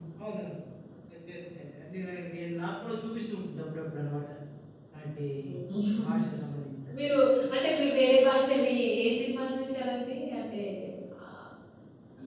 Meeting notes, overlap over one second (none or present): none